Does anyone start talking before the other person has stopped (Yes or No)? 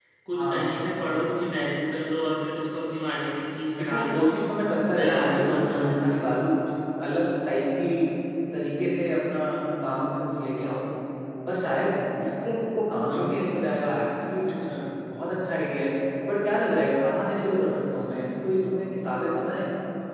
Yes